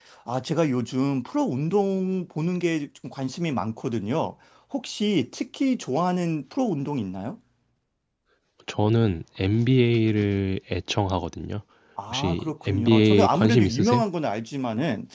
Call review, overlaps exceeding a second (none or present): present